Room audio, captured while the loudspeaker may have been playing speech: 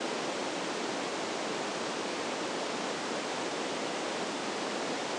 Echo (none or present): none